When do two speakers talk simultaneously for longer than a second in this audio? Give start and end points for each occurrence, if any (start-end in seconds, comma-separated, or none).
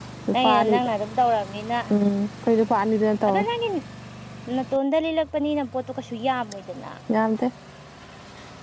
none